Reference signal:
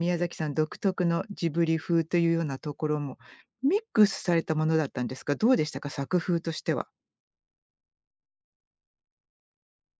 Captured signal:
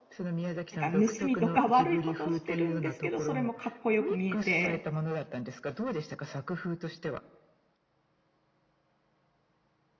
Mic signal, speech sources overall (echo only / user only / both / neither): both